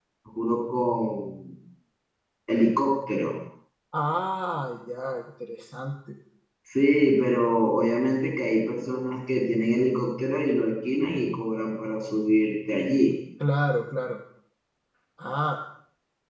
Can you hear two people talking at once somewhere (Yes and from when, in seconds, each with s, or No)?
No